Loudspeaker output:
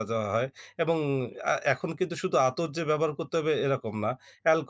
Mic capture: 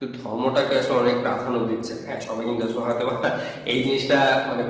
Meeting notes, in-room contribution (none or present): present